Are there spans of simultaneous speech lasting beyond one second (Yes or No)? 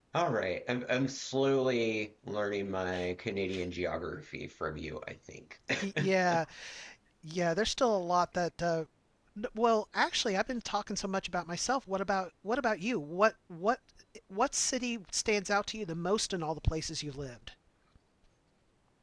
No